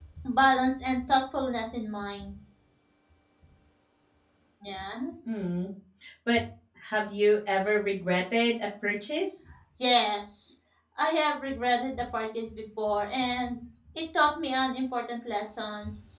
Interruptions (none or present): none